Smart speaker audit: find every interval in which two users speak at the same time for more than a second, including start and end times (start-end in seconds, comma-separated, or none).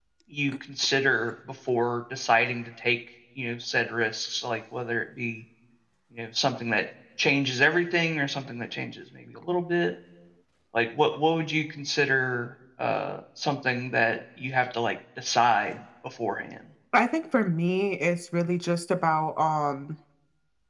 none